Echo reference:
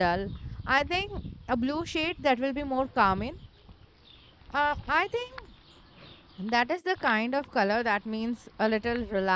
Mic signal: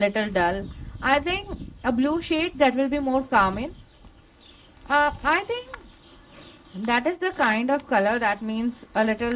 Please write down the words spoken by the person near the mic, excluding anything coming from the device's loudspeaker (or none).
none